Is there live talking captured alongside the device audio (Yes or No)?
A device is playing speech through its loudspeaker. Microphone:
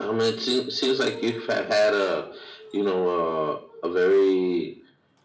No